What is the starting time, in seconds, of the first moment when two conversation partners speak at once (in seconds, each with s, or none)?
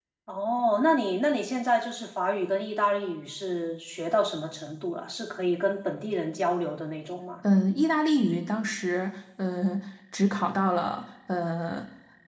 none